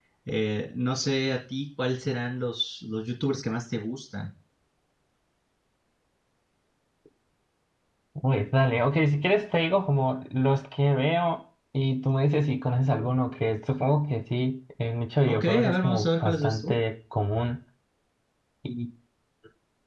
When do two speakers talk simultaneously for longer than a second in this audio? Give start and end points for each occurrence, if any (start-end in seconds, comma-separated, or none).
15.2-16.7